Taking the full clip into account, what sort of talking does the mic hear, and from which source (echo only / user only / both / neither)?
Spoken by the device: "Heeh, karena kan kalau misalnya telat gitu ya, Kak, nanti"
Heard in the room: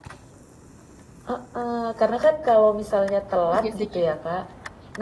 both